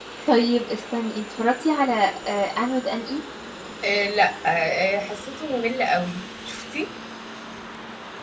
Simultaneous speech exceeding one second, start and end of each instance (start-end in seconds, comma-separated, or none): none